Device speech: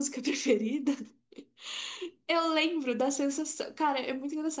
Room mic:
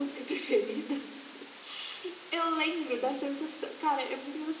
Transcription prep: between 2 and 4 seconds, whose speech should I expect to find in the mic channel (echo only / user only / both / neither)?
echo only